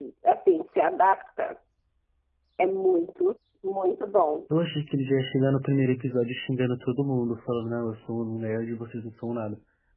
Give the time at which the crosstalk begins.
none

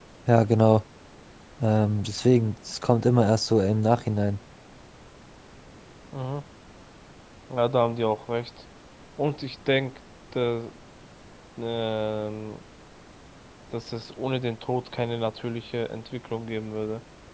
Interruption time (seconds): none

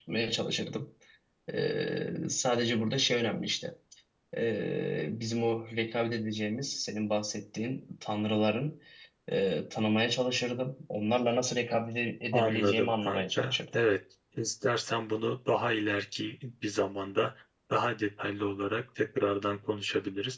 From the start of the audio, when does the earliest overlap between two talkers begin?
12.3 s

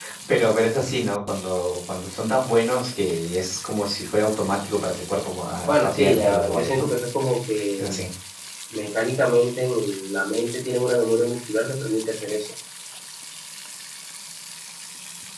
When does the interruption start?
5.7 s

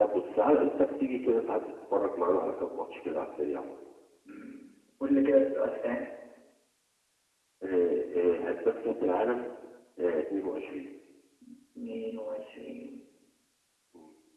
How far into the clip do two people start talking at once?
none

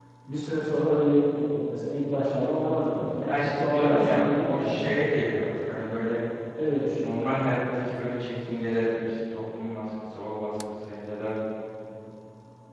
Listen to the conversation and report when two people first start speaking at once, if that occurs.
3.2 s

